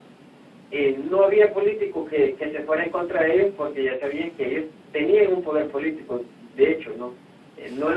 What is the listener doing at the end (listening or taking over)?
listening